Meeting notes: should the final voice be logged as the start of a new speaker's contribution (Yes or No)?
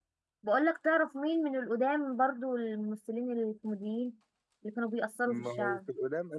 Yes